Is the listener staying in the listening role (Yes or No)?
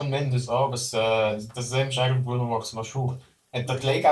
Yes